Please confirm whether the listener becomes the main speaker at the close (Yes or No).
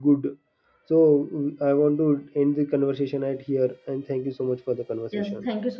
Yes